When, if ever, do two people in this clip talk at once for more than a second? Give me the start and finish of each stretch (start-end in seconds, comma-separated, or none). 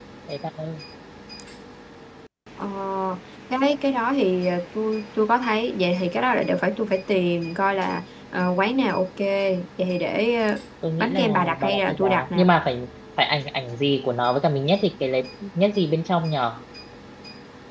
11.0-12.5